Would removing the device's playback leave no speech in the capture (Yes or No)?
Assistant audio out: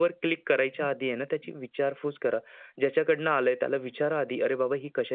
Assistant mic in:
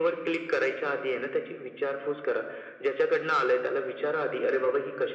Yes